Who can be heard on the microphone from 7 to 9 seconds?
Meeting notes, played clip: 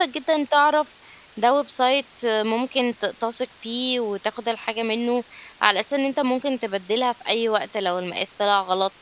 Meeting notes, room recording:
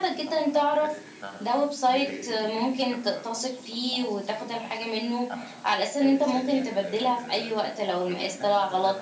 both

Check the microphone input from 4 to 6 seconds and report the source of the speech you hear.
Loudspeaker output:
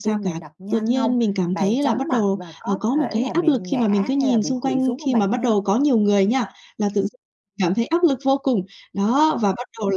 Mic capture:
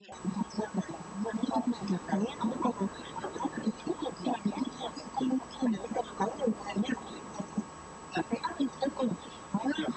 echo only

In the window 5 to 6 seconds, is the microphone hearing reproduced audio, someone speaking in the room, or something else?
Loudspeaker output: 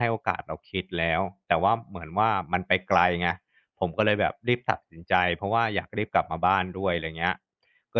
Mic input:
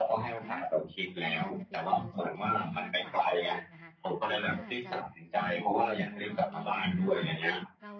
both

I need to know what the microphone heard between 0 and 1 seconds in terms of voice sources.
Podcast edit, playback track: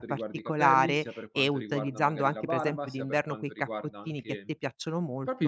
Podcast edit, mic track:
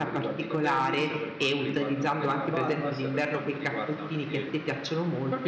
echo only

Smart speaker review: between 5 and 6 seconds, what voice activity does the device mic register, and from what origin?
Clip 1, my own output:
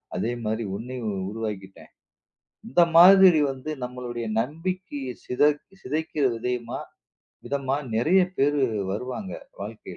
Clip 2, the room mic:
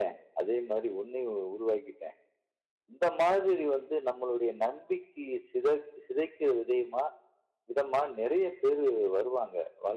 echo only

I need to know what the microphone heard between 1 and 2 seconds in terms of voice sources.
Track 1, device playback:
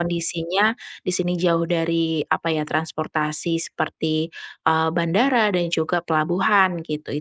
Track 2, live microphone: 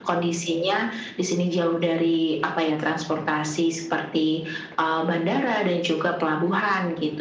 echo only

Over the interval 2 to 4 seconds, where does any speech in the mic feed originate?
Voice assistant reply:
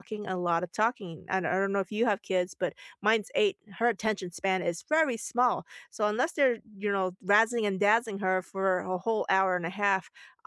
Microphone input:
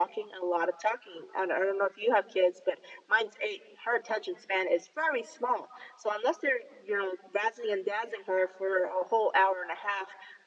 echo only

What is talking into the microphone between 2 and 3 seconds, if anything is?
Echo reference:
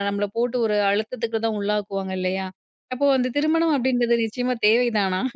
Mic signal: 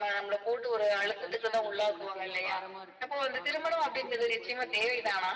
both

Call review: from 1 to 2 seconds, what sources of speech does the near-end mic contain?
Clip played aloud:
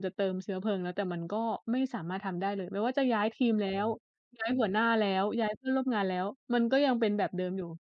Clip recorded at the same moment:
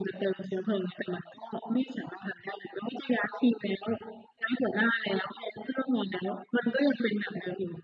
echo only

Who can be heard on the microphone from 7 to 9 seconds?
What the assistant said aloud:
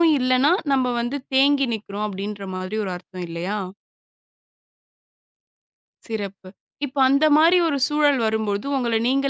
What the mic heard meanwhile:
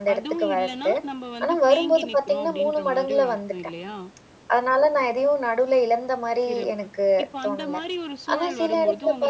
both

